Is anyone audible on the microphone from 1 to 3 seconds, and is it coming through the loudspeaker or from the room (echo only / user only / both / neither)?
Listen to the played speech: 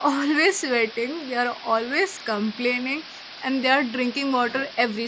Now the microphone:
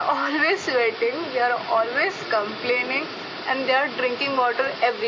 echo only